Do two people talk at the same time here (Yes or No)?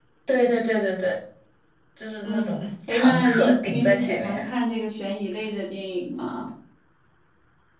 Yes